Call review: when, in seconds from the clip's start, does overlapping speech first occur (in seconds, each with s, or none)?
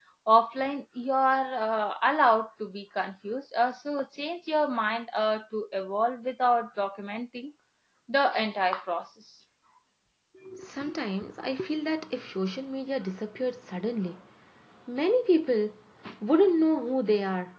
none